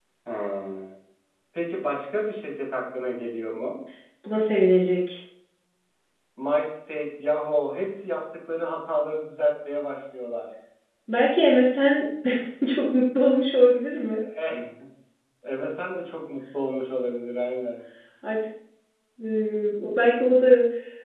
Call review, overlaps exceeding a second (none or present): none